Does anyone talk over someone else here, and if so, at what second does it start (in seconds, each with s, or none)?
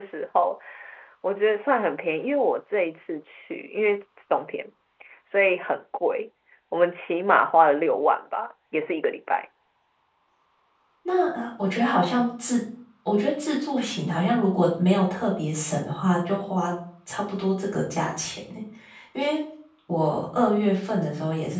none